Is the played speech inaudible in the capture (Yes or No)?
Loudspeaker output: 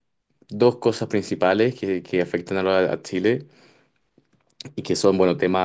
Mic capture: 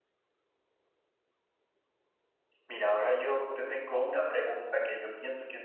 Yes